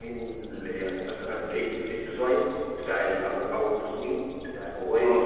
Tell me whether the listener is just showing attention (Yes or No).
Yes